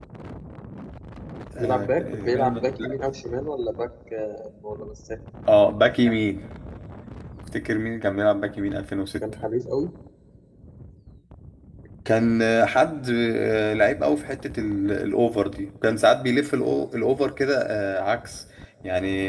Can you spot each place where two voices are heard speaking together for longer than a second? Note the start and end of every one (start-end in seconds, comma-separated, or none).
1.6-3.0